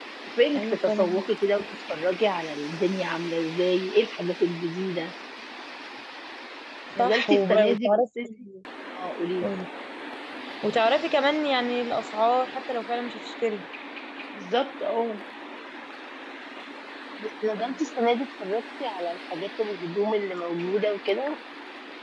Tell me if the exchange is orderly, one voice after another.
No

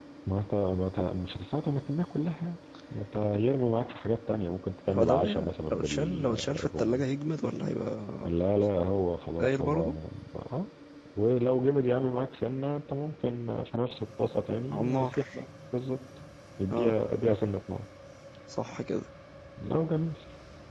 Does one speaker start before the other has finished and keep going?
Yes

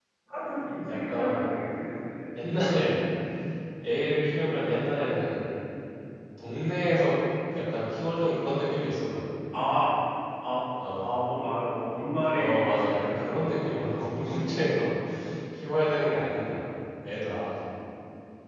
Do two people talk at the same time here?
Yes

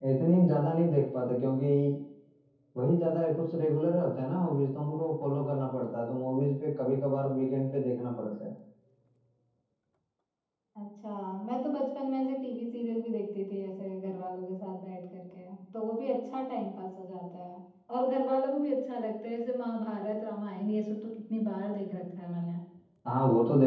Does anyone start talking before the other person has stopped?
No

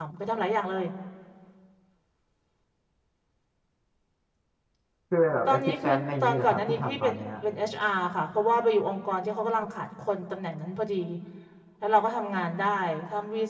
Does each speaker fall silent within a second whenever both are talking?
No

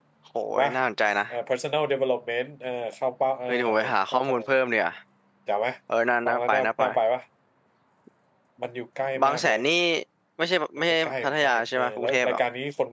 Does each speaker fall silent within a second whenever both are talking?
No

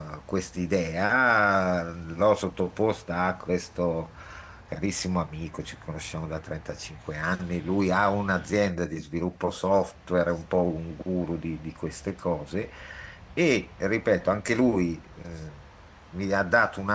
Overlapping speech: No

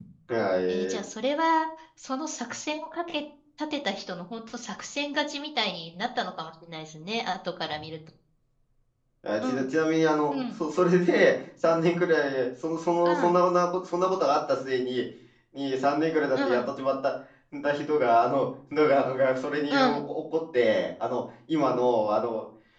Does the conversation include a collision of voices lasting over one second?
No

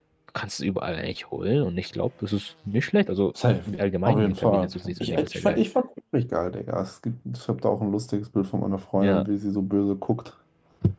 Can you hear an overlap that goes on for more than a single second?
Yes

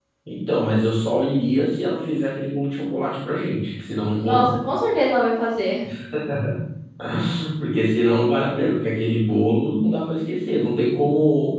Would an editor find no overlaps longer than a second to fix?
Yes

